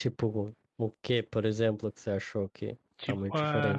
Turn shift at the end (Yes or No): Yes